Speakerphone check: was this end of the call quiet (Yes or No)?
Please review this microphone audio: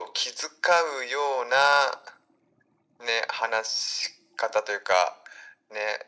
Yes